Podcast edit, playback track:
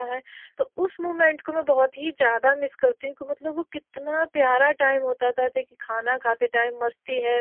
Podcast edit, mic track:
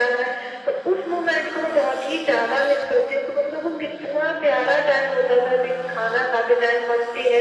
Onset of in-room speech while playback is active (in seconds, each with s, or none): none